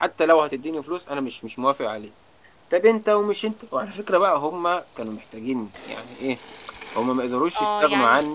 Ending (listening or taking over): taking over